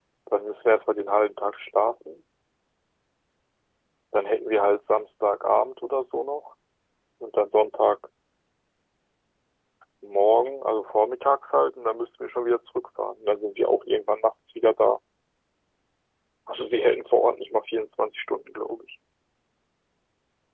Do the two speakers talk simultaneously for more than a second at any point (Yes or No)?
No